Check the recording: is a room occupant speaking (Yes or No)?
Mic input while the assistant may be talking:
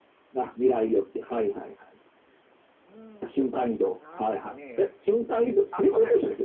Yes